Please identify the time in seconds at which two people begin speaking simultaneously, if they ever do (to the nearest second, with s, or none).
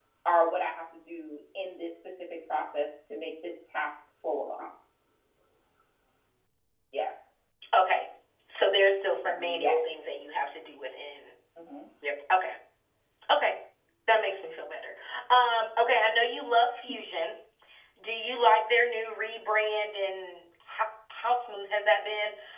9 s